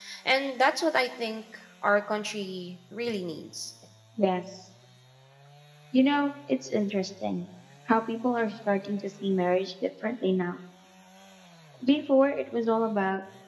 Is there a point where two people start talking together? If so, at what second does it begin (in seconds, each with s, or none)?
none